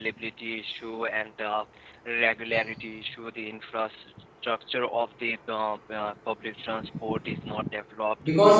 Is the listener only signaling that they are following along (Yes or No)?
No